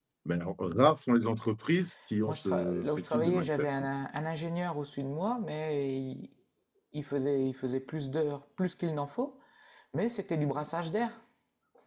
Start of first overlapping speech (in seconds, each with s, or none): 2.3 s